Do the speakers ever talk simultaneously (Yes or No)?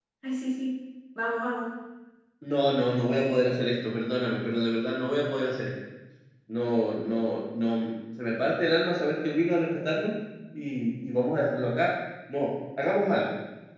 No